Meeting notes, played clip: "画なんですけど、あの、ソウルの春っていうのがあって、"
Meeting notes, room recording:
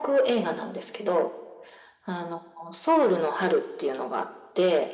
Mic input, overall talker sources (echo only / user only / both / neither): echo only